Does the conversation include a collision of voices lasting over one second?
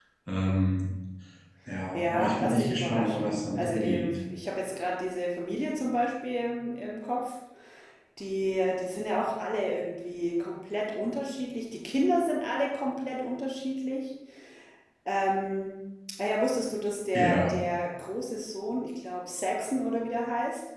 Yes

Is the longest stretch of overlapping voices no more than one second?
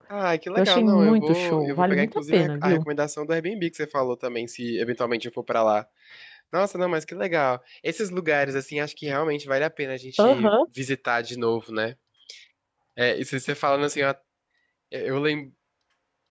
No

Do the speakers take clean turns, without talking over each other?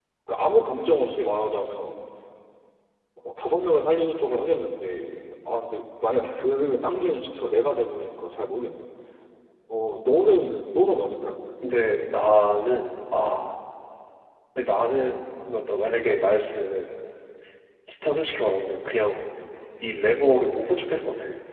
Yes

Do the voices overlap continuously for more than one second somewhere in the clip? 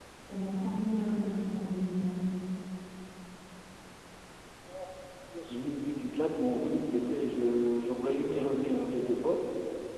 No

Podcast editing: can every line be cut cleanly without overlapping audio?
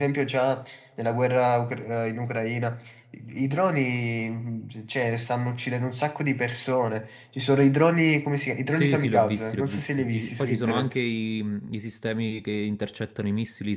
No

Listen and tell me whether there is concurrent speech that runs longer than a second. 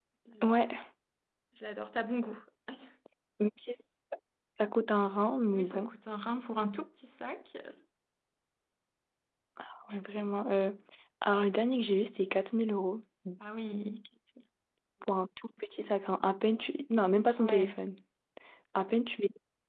No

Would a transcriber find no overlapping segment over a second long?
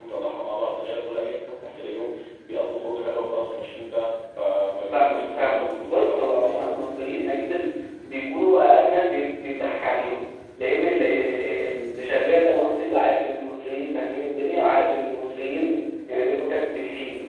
No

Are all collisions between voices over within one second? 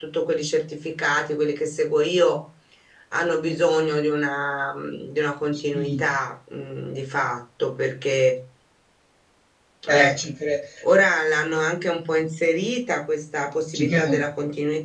Yes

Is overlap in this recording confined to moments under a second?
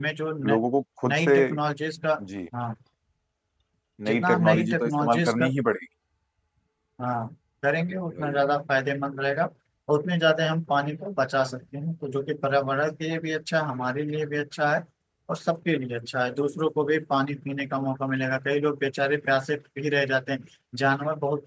No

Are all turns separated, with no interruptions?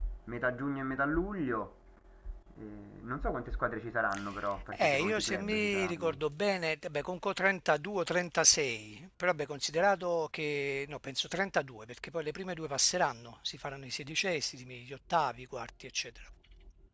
No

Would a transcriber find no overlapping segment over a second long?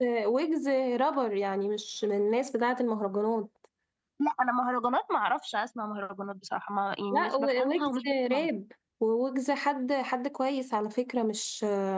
No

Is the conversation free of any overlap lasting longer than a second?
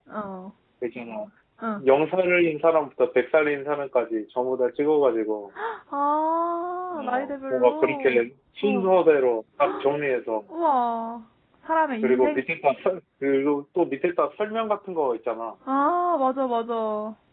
No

